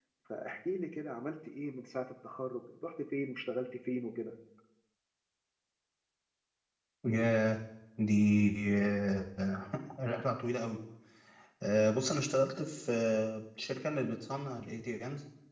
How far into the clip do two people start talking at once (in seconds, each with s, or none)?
none